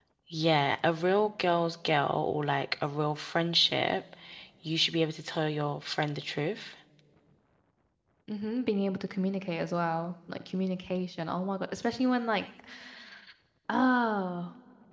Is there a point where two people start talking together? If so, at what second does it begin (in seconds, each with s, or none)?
none